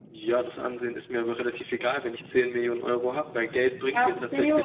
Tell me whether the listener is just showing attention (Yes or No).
No